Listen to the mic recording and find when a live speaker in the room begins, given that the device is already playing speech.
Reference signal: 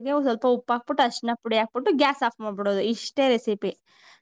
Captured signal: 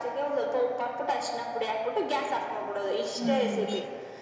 3.2 s

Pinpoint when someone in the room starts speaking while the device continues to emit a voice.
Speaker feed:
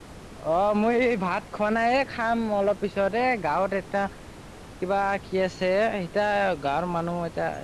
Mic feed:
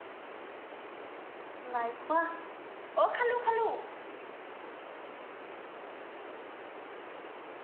1.7 s

